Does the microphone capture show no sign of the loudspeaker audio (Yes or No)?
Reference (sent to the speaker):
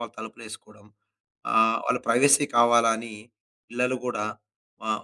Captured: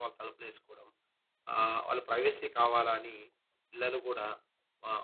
No